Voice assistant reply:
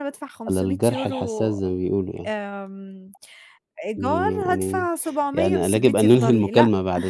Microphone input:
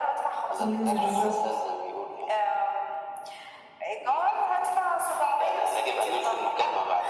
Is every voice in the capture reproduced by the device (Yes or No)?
No